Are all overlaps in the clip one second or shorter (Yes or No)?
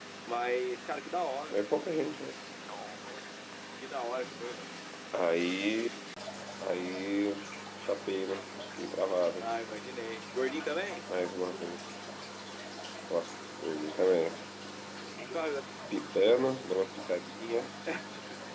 Yes